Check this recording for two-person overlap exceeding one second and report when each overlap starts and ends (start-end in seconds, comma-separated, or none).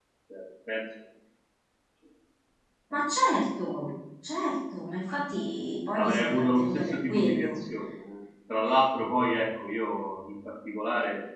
5.9-7.6